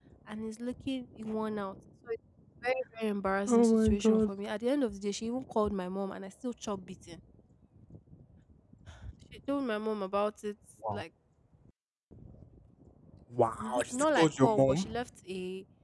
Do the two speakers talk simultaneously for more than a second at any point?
Yes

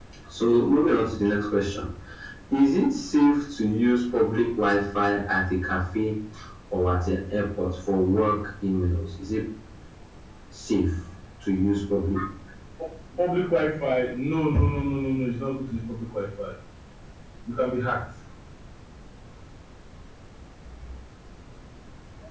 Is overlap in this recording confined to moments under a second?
Yes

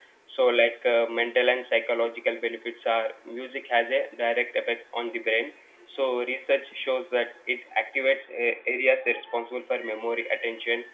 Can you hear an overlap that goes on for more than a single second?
No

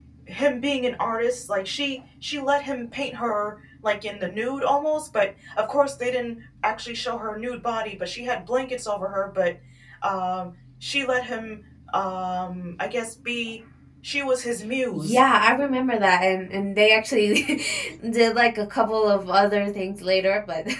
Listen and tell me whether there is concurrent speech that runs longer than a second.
No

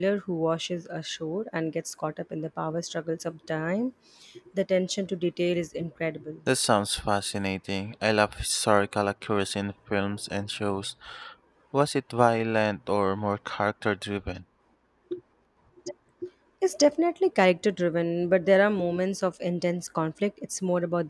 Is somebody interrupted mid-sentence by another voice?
No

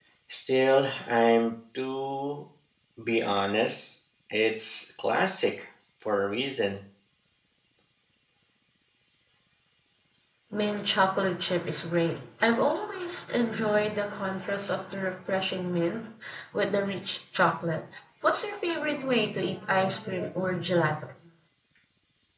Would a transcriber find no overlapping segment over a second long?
Yes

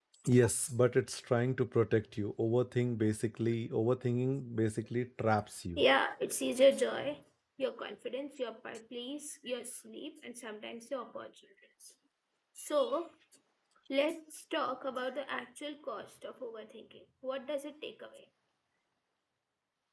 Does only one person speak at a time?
Yes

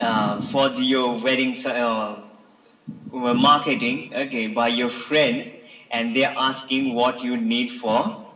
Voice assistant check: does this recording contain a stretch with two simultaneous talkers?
No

